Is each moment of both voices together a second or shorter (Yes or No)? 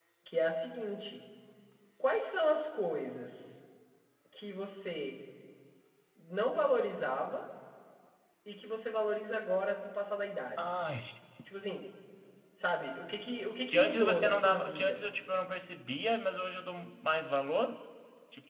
No